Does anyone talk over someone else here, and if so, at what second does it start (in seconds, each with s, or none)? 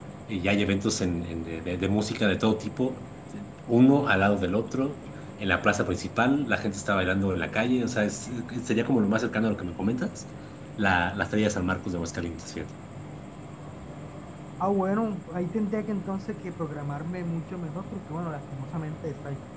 none